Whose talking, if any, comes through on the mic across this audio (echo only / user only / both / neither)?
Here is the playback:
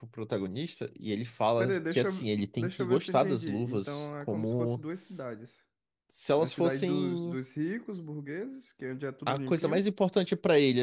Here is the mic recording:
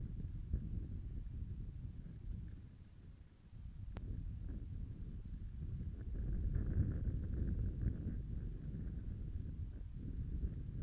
neither